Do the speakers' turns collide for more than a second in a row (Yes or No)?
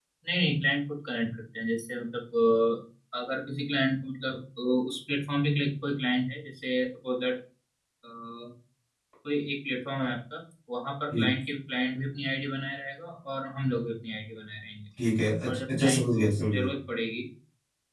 Yes